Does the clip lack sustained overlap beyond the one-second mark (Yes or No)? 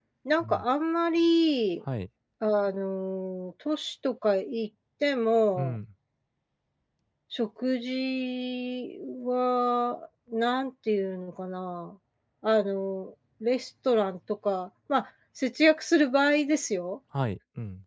Yes